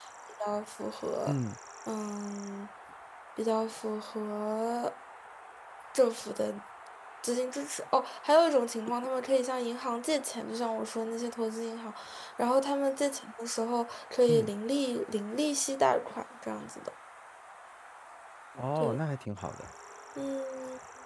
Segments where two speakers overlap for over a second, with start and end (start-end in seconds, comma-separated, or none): none